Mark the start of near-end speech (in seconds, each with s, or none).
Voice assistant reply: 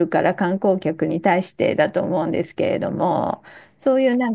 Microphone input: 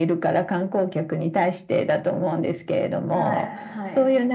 3.1 s